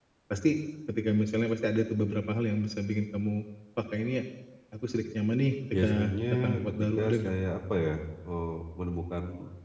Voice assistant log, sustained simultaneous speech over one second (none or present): present